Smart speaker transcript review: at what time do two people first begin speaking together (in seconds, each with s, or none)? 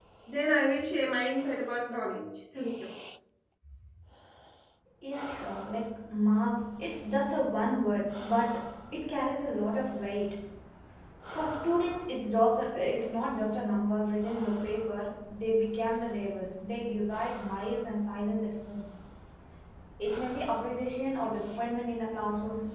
none